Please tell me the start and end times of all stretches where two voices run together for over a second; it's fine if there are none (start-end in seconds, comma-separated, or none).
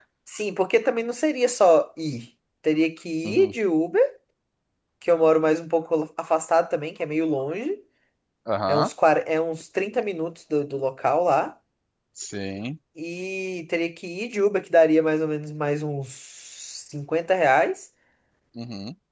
none